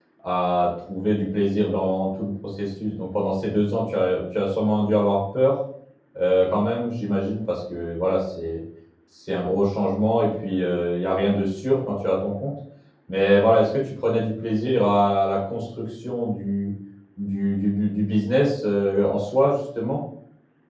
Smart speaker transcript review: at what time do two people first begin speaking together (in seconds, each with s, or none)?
none